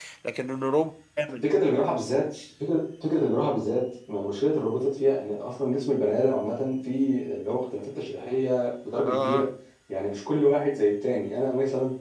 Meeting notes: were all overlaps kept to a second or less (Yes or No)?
Yes